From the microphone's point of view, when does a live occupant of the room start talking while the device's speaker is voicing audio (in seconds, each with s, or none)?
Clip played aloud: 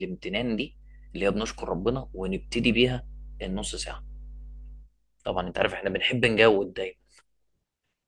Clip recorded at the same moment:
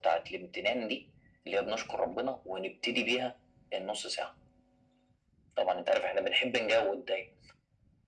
none